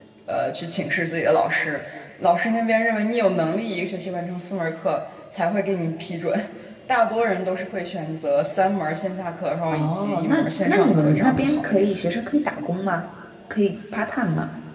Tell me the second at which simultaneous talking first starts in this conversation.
9.7 s

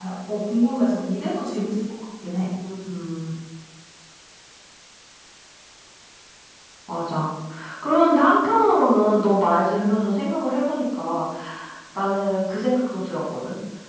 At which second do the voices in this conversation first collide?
none

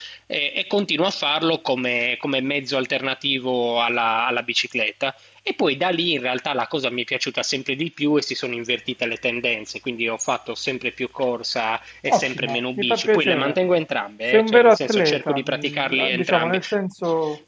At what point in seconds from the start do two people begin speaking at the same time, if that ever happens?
12.1 s

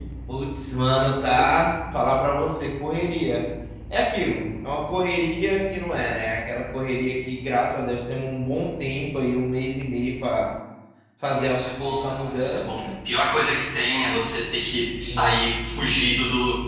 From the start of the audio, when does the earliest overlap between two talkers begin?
11.3 s

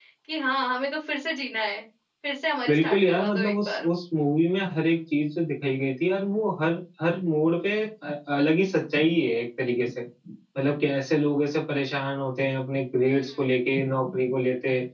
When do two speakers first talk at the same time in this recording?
2.7 s

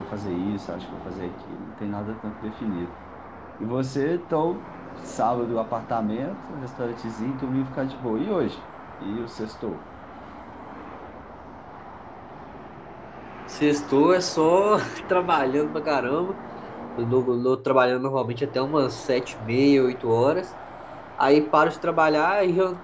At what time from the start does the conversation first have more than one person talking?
none

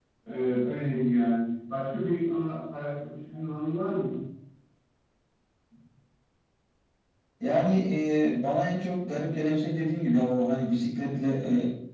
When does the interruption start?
none

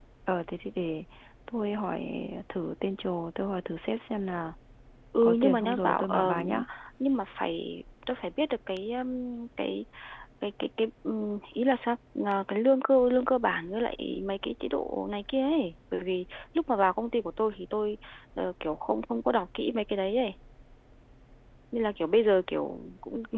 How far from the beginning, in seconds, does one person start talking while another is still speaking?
5.2 s

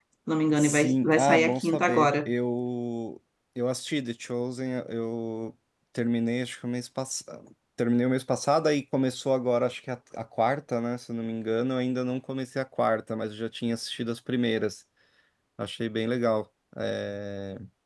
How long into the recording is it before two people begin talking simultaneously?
0.6 s

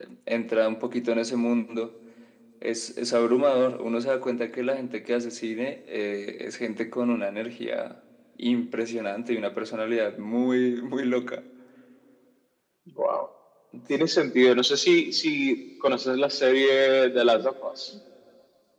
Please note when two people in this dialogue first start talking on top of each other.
none

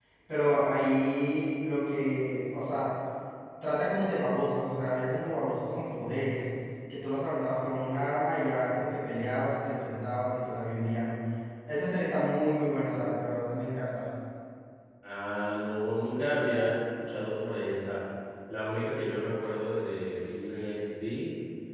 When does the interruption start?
none

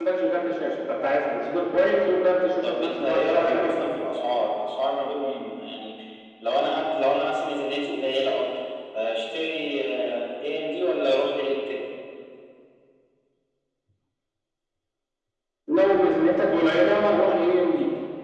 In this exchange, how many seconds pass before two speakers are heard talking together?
2.6 s

